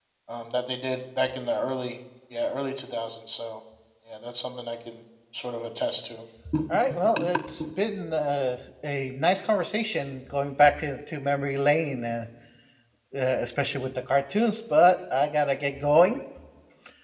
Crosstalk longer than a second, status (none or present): none